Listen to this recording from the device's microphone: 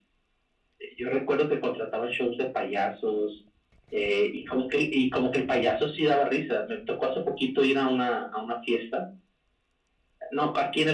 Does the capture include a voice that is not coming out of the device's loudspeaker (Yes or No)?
No